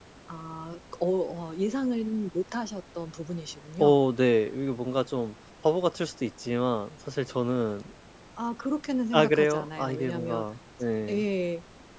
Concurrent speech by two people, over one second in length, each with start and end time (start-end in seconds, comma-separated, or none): 9.1-10.4